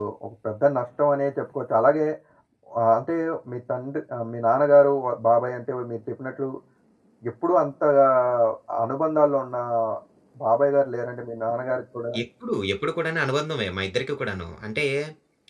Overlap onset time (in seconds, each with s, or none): none